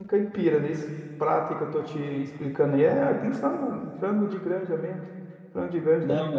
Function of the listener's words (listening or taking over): listening